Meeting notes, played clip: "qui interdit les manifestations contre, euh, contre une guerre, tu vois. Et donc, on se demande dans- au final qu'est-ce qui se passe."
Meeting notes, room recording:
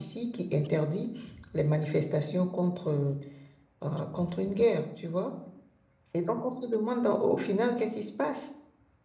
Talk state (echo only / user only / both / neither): echo only